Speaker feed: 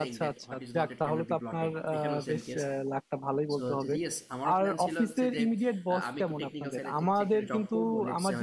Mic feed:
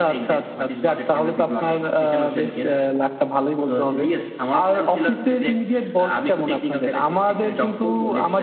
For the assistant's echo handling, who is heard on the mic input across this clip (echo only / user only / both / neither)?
echo only